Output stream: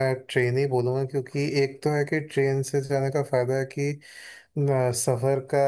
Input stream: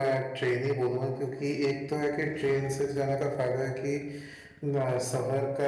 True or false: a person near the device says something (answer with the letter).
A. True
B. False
B